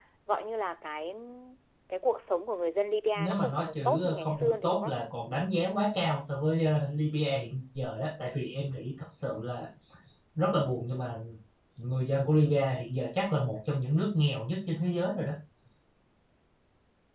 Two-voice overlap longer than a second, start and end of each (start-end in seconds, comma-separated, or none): 3.2-5.0